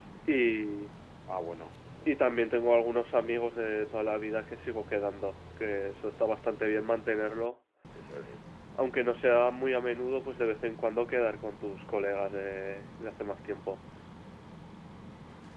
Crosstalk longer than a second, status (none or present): none